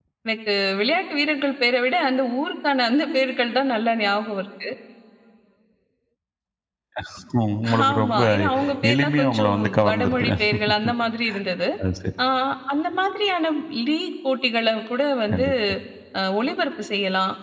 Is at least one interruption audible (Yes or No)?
Yes